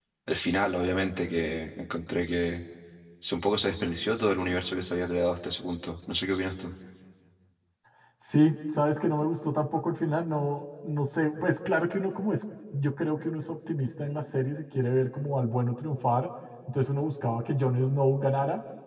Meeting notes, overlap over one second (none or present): none